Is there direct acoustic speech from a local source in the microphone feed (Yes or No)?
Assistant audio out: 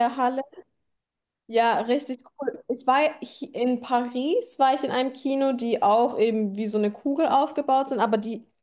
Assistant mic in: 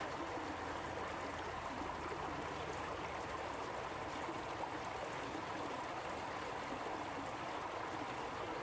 No